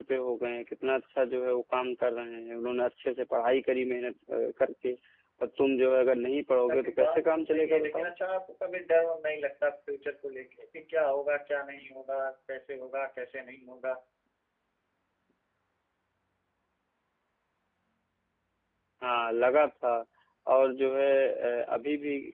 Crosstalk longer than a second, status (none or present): present